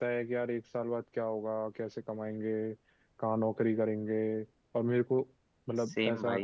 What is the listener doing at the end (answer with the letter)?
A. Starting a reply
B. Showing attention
A